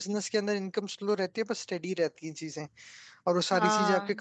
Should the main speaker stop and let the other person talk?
No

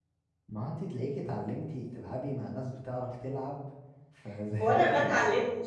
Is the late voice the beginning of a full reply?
Yes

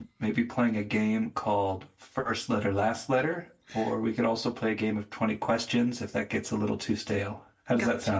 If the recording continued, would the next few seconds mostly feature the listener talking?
Yes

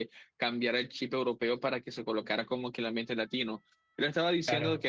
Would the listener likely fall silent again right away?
Yes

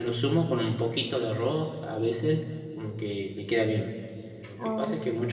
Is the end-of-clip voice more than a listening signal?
No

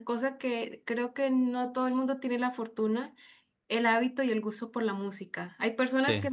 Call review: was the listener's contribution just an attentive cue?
Yes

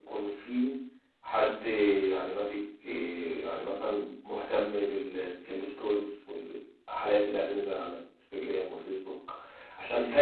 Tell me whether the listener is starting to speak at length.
No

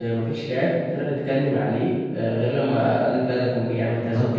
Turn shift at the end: Yes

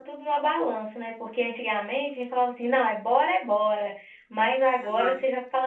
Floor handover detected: No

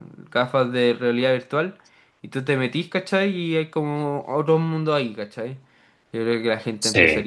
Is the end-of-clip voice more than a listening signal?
No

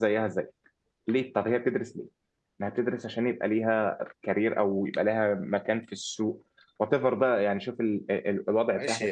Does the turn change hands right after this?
Yes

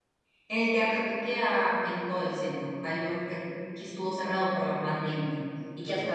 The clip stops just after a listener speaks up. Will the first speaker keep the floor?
Yes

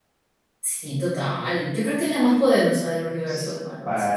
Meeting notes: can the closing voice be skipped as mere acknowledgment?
No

